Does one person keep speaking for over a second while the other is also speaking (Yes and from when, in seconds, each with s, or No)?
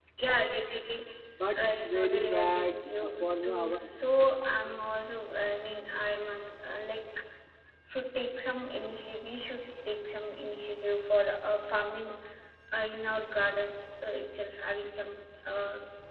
Yes, from 1.7 s